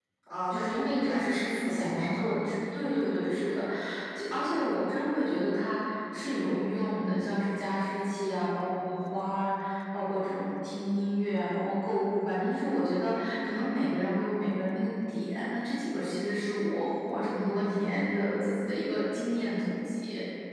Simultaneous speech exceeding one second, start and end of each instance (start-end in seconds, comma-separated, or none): 0.5-2.2